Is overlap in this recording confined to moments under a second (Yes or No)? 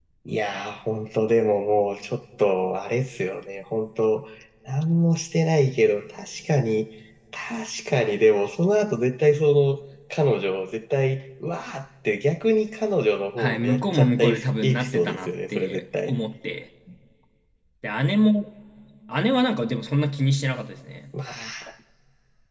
No